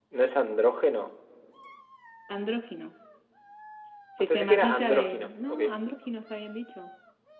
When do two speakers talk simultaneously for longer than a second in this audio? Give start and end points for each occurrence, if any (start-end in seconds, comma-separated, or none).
4.2-5.6